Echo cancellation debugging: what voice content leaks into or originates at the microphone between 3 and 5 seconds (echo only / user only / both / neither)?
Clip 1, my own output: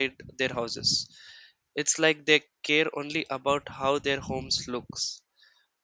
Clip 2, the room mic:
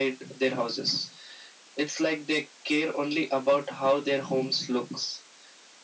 echo only